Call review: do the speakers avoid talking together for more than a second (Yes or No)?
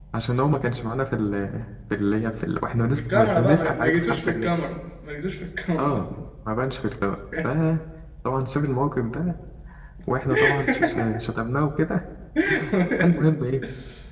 No